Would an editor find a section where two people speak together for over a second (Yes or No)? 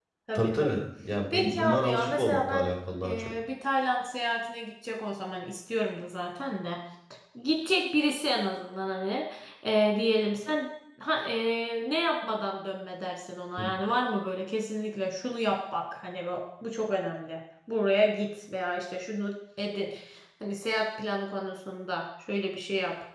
Yes